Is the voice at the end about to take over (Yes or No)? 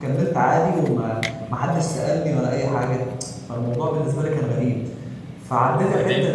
No